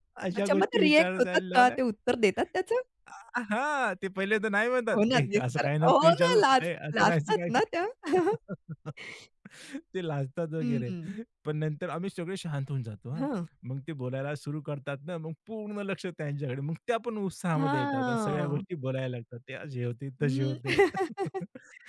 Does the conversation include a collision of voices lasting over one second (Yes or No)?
Yes